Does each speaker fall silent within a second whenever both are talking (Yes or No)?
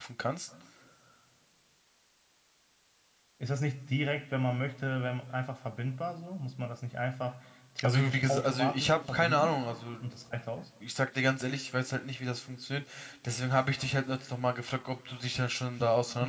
No